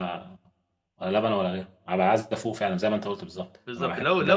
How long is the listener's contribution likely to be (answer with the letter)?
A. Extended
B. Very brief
A